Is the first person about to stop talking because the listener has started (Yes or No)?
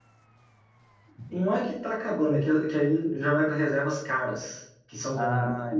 No